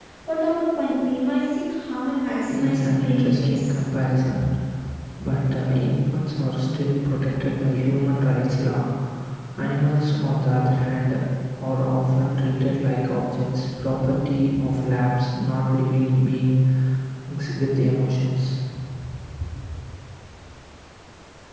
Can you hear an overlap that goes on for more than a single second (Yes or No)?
Yes